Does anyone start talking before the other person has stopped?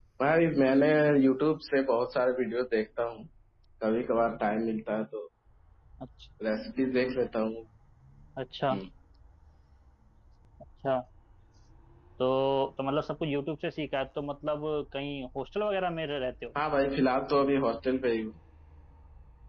No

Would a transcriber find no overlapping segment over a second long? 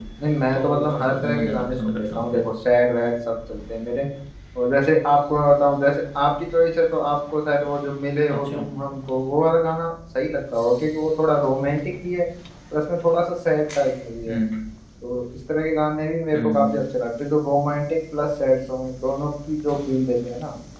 No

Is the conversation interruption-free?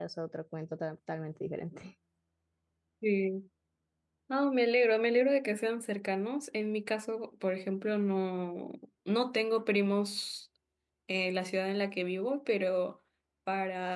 Yes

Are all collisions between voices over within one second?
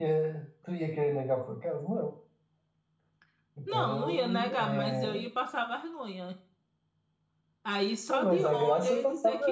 No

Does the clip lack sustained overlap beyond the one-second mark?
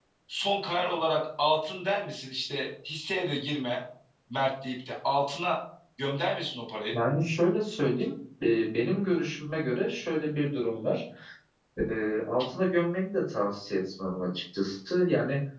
Yes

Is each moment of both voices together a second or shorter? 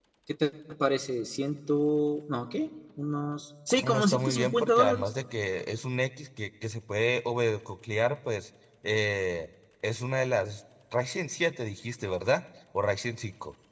No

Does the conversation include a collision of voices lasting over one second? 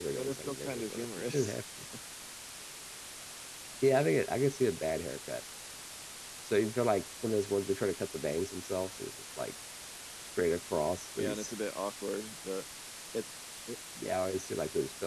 Yes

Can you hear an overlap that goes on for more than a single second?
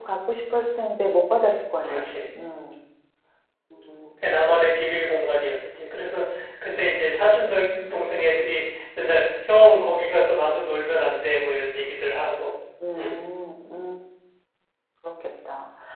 No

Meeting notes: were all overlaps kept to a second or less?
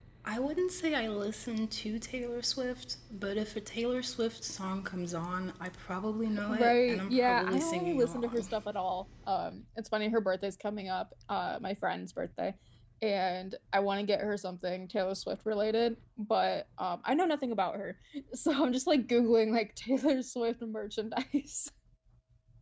No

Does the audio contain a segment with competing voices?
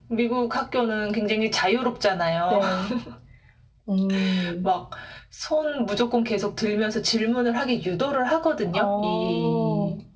Yes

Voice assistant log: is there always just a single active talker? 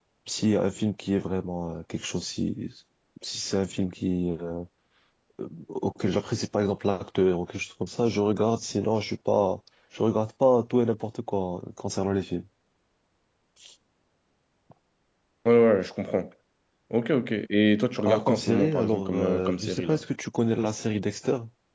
No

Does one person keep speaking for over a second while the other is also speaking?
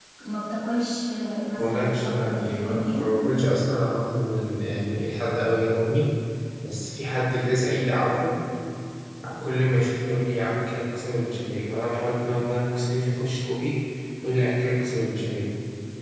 Yes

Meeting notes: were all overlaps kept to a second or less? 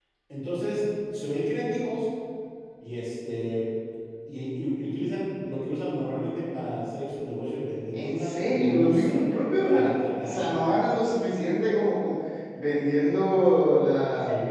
No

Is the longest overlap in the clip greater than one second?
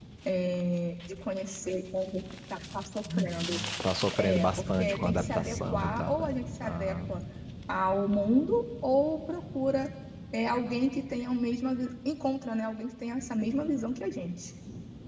Yes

